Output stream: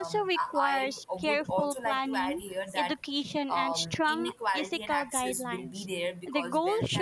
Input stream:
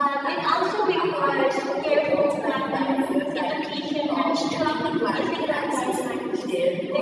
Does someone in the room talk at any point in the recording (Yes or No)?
No